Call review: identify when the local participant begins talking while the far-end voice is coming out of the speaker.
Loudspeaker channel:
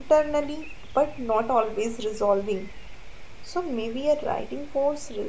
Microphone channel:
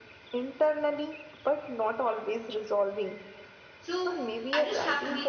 3.8 s

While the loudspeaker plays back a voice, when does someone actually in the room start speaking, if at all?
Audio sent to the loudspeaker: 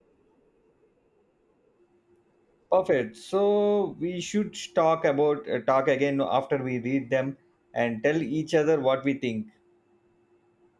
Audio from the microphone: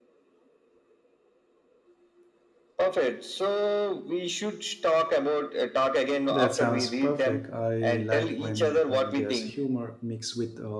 6.3 s

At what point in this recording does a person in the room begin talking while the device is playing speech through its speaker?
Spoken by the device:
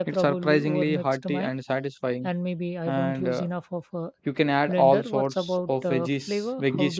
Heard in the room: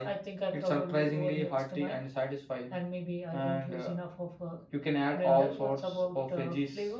none

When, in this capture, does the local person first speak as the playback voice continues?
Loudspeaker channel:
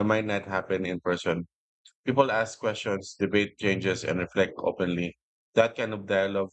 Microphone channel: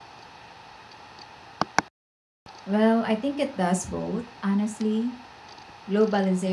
2.6 s

